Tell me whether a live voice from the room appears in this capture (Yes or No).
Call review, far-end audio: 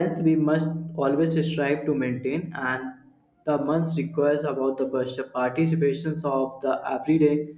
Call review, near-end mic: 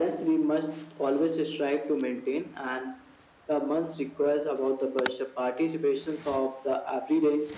No